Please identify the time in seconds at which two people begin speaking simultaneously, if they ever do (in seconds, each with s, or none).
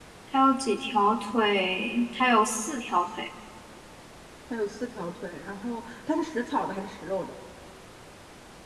none